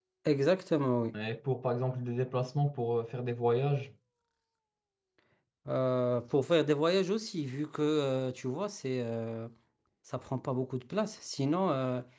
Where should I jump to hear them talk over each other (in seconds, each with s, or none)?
none